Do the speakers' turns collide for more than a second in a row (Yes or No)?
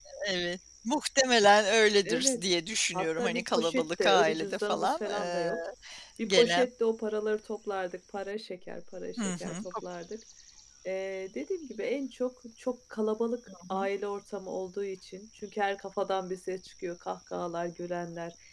Yes